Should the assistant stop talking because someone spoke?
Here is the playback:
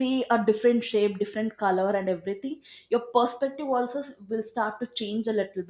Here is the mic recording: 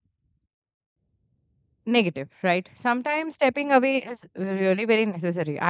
Yes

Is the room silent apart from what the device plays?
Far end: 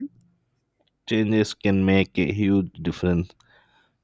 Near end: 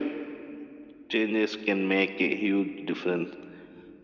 Yes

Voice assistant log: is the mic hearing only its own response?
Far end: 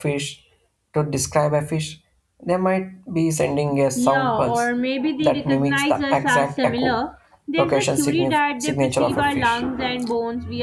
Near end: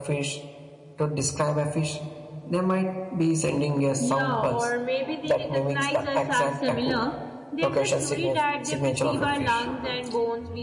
Yes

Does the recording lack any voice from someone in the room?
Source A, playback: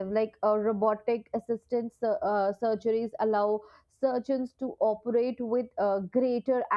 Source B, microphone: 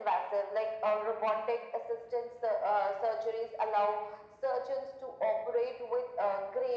Yes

